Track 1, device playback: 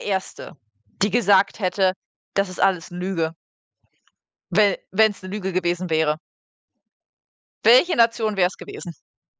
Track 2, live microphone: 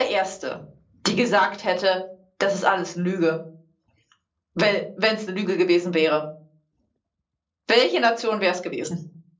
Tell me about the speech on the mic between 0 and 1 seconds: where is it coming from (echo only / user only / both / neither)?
echo only